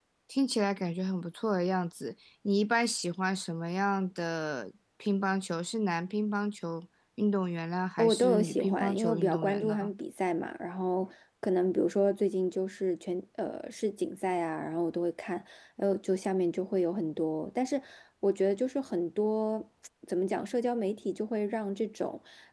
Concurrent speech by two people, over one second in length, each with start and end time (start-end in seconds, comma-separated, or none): 8.0-9.9